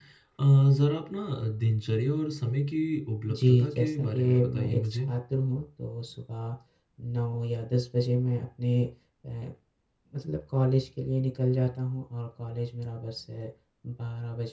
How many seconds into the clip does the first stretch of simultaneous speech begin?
3.3 s

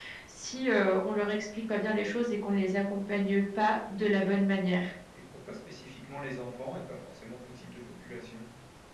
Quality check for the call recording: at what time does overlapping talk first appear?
none

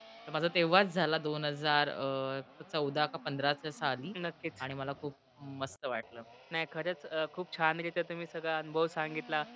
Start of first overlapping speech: none

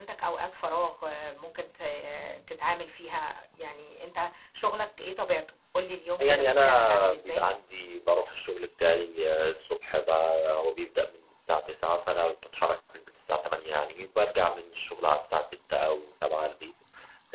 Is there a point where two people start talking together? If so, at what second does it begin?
6.2 s

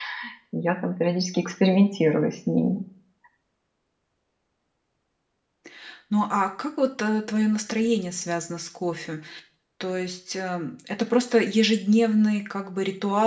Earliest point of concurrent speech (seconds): none

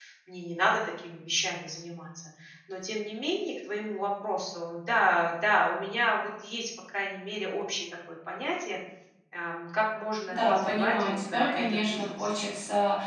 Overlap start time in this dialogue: 10.3 s

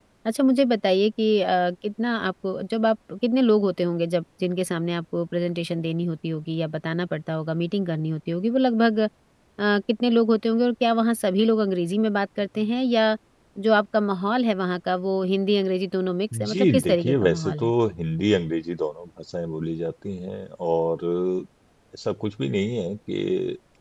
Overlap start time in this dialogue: 16.3 s

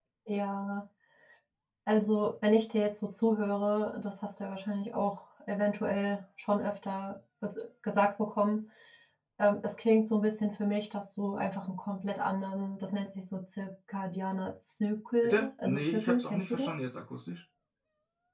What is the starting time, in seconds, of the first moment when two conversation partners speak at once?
15.2 s

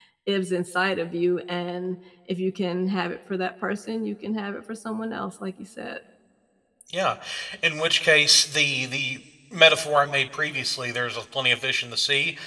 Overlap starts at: none

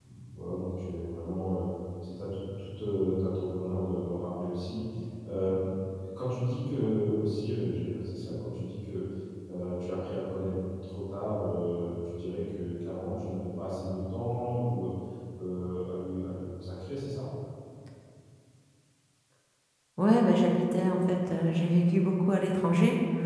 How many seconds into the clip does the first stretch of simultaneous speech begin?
none

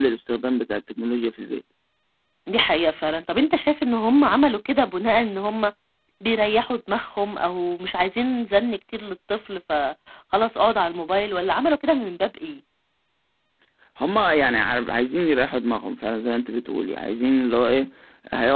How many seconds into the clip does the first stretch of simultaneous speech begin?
none

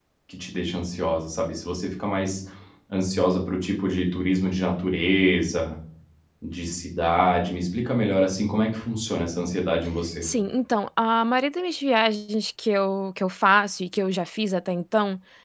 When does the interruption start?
none

